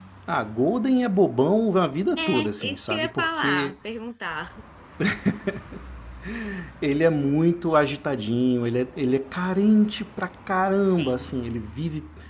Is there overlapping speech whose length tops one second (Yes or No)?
Yes